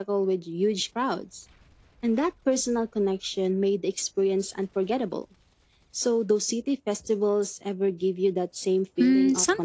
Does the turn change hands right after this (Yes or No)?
Yes